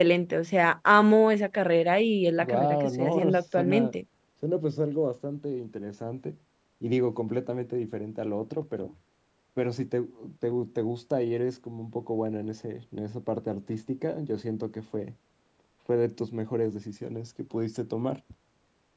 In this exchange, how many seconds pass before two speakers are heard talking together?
2.4 s

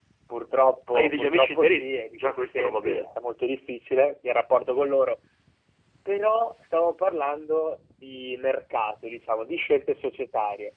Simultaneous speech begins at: 0.9 s

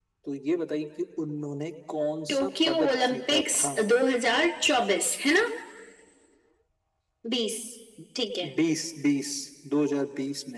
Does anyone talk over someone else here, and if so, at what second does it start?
2.3 s

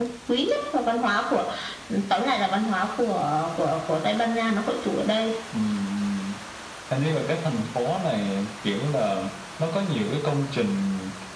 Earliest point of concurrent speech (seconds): none

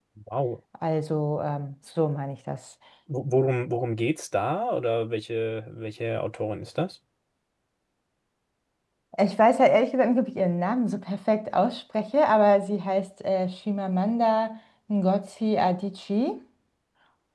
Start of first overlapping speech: none

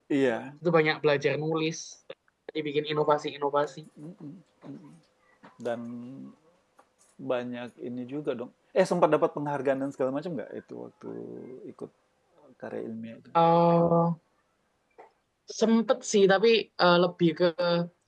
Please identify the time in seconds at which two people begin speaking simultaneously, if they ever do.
none

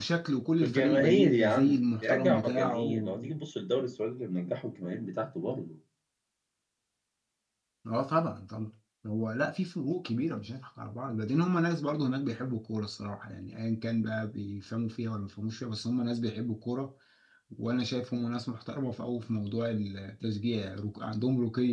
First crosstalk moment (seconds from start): 0.6 s

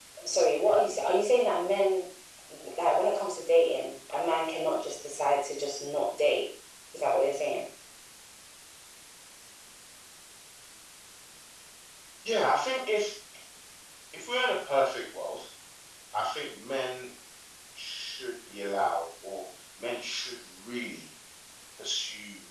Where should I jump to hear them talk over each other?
none

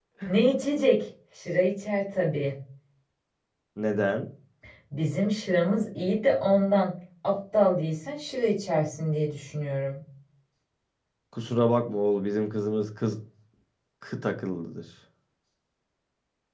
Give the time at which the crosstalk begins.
none

